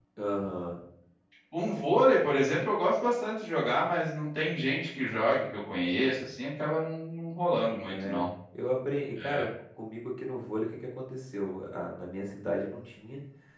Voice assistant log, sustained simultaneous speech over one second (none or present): none